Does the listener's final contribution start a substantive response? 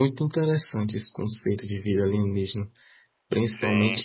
No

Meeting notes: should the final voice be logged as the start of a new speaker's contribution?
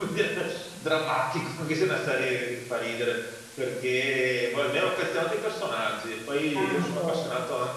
No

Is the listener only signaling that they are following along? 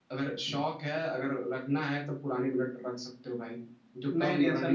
No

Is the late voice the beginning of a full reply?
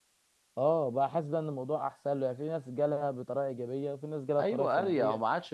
Yes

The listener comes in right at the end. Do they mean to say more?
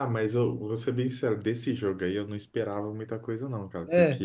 No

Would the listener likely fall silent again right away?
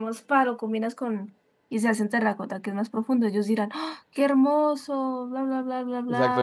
No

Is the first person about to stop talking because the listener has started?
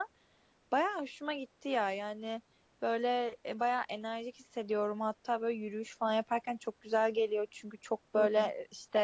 No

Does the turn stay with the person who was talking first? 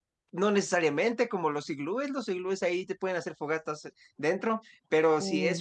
Yes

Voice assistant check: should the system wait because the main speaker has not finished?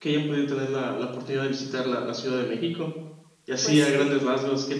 Yes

